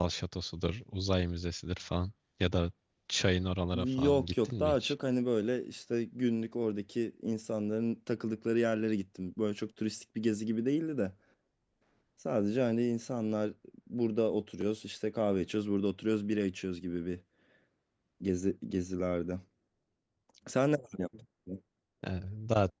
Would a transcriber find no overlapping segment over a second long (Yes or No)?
No